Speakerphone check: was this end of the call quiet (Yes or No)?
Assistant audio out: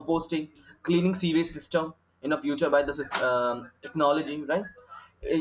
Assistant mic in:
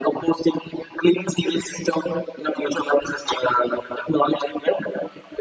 Yes